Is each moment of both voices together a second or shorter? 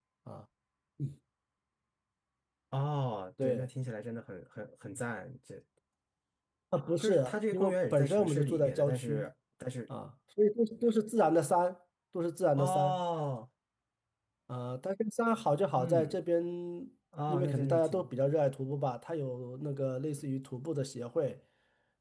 No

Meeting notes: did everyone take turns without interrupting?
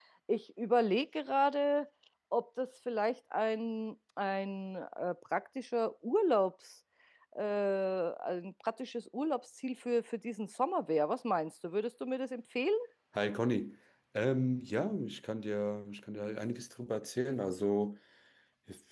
Yes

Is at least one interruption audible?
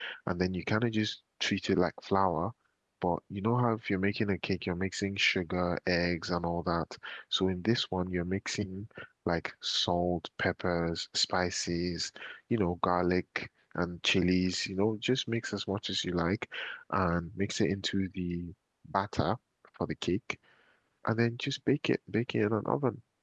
No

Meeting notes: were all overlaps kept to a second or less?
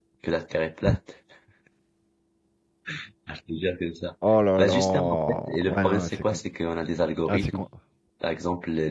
No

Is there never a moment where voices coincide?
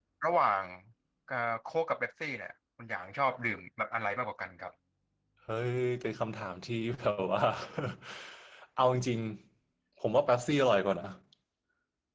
Yes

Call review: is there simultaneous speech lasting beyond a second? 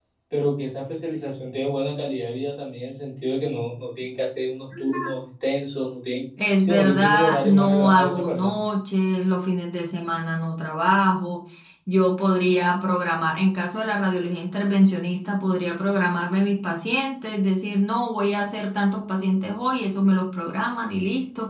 Yes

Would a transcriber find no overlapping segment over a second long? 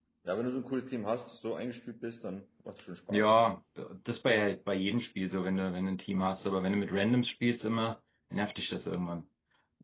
Yes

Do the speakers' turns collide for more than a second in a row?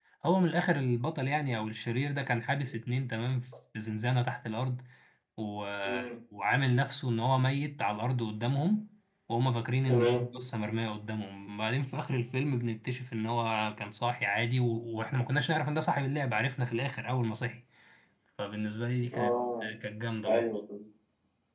No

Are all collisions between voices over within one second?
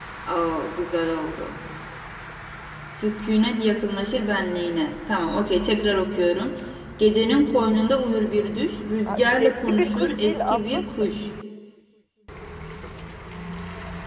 No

